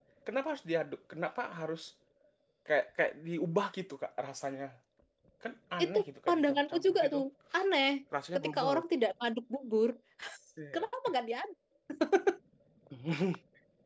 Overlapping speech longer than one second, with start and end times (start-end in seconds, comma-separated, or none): 5.8-7.2